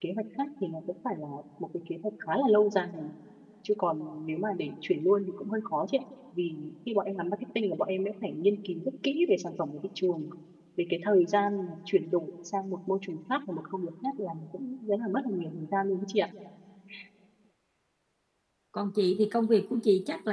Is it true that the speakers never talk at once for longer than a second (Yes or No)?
Yes